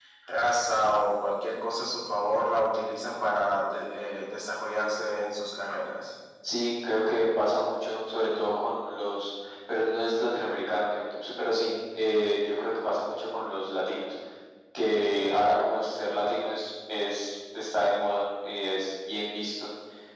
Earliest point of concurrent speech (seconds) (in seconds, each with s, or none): none